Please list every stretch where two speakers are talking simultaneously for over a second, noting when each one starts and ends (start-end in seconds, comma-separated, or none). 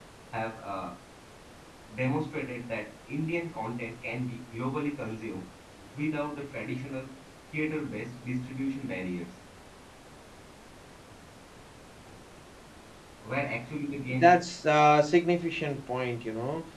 none